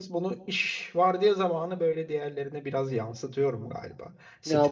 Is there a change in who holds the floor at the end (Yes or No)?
Yes